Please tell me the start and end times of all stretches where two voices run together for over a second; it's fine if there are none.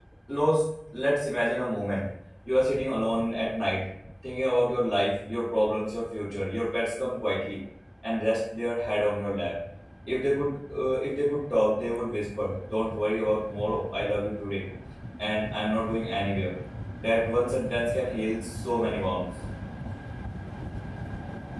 none

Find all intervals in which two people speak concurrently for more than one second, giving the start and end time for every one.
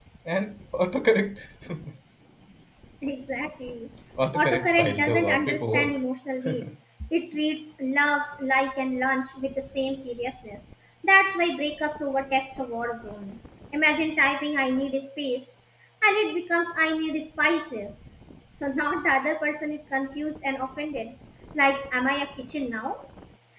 4.3-6.0

